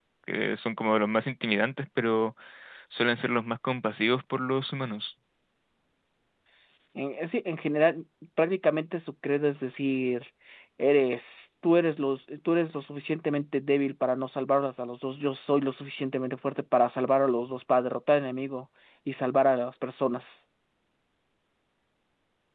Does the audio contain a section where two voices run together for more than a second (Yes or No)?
No